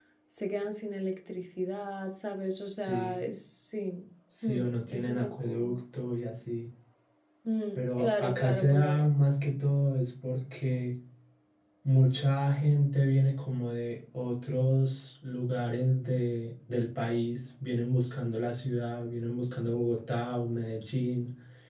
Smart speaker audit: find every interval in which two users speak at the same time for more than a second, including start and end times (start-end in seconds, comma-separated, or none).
4.4-5.8, 7.8-9.1